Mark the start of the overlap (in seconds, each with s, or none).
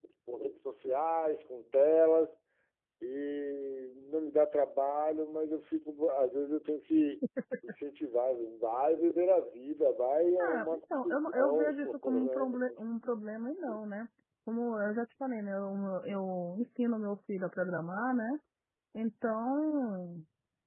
10.4 s